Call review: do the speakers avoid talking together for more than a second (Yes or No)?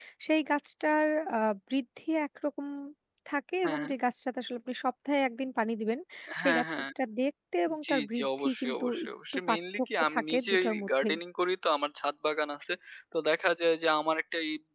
No